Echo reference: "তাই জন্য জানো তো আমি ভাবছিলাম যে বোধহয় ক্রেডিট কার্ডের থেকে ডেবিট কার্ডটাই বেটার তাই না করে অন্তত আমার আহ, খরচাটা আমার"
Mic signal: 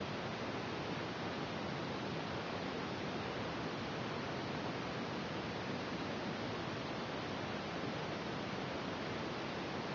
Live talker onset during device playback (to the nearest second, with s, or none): none